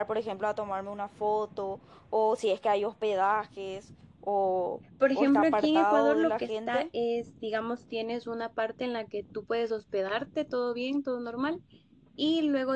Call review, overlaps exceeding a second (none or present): present